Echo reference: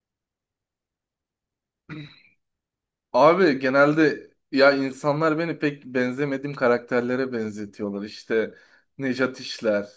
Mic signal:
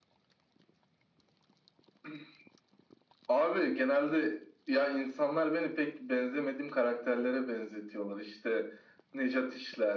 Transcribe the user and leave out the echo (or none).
none